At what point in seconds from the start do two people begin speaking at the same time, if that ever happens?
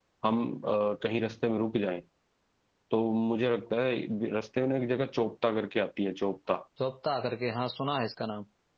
none

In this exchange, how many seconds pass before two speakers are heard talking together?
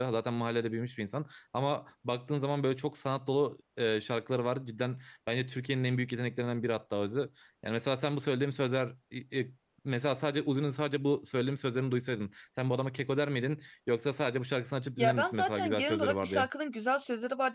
15 s

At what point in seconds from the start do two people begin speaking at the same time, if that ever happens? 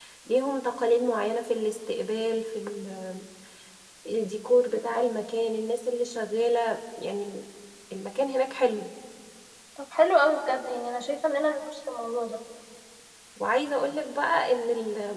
none

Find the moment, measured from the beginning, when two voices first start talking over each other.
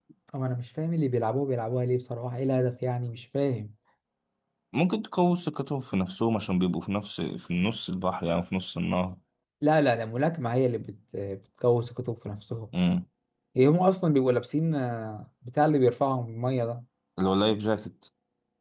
none

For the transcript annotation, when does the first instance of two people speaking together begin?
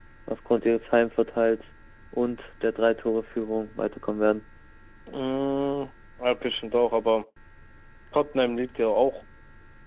none

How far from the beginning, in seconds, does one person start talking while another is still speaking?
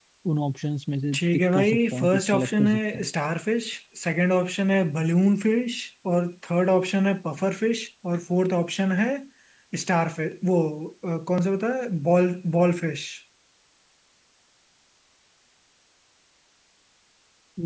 1 s

